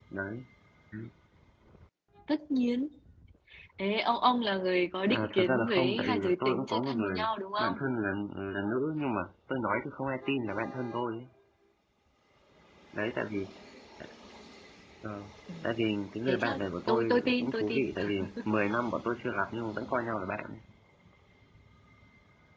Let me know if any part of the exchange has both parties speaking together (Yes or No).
Yes